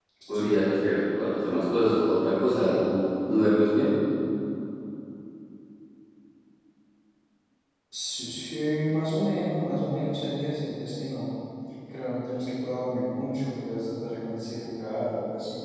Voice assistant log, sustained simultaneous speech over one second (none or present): none